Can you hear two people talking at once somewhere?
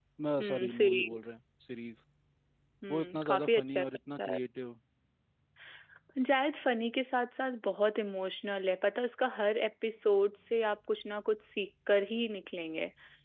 Yes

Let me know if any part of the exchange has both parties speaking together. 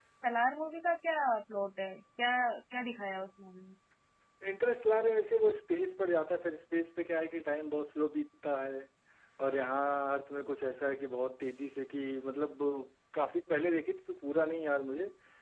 No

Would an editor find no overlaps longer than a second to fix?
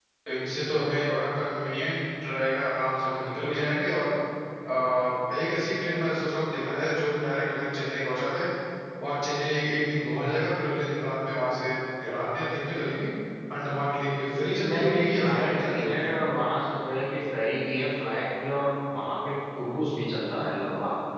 No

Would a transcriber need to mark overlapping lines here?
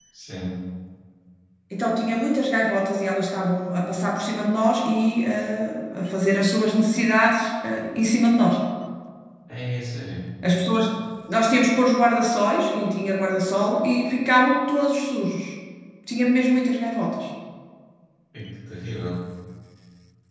No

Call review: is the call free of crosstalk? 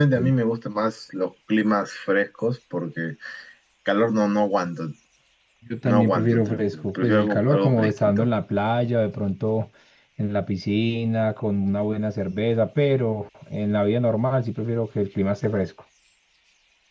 No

